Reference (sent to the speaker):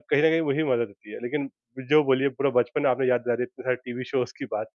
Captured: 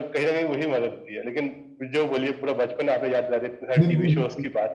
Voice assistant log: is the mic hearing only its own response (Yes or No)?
No